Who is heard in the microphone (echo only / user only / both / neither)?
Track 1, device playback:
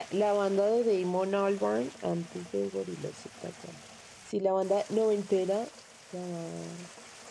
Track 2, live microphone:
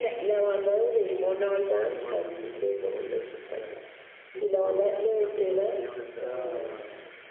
both